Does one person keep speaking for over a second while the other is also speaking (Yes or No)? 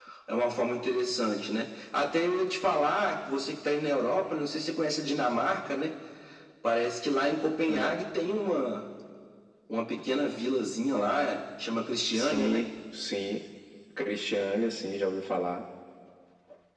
No